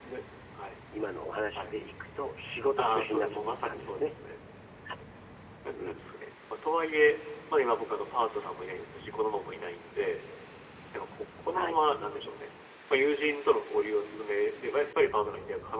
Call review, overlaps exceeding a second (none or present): present